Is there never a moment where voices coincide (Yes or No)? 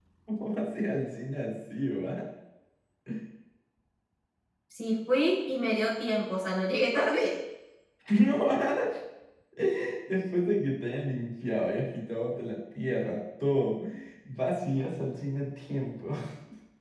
Yes